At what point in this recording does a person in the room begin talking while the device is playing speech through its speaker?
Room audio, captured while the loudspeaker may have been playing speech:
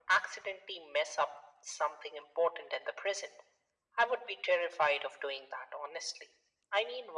none

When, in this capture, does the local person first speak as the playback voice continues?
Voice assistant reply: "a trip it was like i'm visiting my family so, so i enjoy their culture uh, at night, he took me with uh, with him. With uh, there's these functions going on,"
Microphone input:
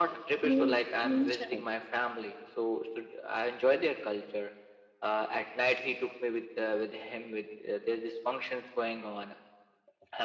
0.4 s

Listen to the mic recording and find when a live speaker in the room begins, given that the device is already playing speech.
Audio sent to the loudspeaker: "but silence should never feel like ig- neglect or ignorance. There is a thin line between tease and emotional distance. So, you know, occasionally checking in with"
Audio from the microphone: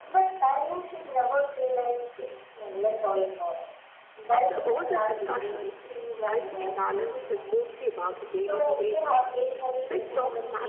4.3 s

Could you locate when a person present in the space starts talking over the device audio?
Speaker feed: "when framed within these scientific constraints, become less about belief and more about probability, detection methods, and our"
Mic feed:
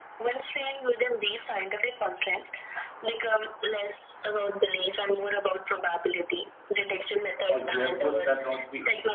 7.5 s

